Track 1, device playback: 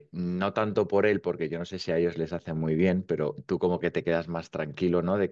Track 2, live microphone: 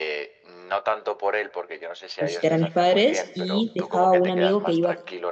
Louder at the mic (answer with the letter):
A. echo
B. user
B